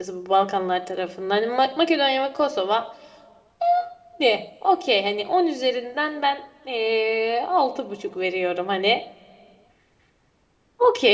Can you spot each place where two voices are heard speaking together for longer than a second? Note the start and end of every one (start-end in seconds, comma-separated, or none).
none